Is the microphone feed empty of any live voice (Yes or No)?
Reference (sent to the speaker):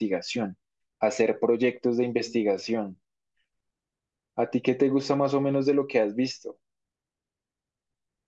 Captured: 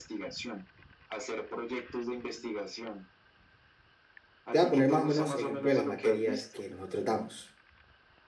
No